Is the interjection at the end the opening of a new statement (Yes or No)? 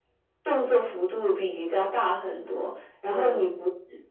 No